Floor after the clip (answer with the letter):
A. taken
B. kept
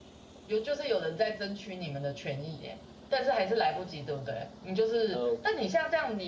B